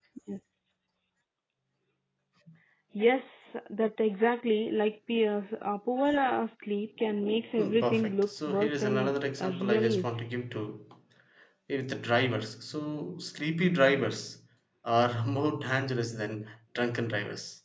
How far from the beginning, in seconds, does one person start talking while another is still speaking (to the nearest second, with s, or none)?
8 s